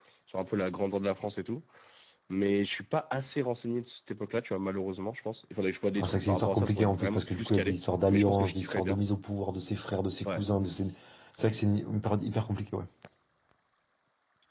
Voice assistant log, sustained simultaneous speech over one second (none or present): present